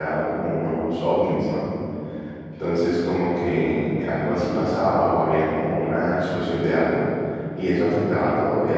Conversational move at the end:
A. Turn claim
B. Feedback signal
B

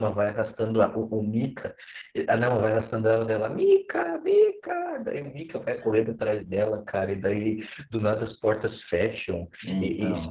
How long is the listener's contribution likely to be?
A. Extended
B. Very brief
B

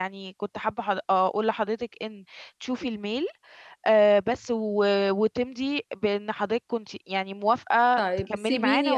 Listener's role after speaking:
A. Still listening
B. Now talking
B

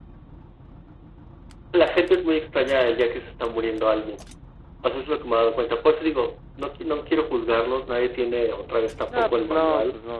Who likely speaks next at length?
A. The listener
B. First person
A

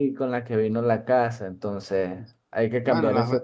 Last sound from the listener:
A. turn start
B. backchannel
A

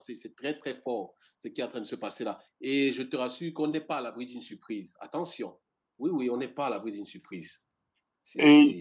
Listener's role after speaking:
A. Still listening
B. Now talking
B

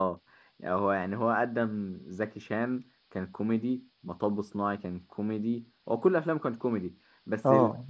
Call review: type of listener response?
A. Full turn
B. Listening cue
A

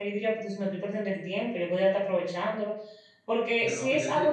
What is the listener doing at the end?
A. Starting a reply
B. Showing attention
A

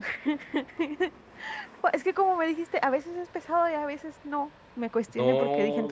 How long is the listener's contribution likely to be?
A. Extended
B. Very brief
A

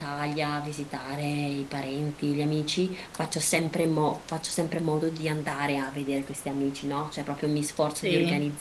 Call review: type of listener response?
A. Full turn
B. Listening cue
B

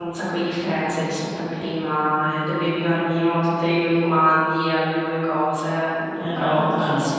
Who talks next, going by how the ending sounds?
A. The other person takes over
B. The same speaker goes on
A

